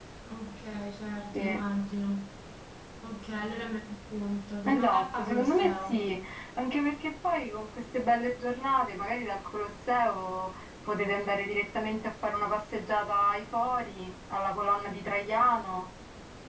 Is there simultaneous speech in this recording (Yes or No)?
Yes